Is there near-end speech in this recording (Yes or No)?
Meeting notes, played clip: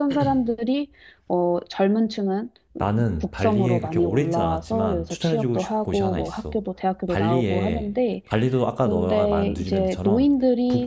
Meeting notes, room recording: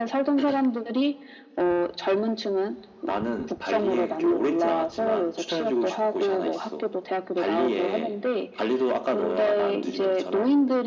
No